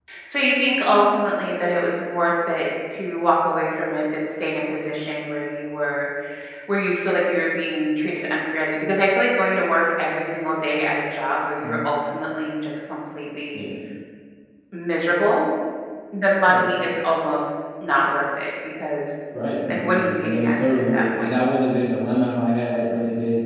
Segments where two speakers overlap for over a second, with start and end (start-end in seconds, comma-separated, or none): 19.7-21.3